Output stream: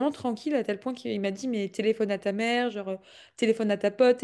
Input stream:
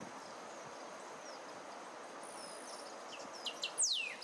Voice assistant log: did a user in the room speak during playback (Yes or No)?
No